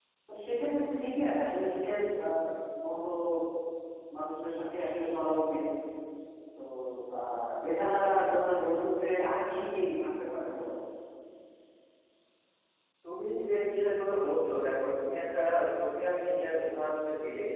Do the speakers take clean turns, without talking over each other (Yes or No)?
Yes